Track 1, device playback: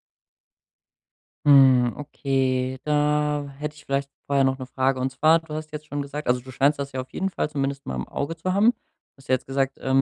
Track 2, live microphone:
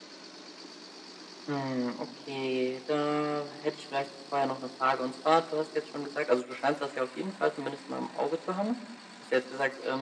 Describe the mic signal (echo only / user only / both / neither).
echo only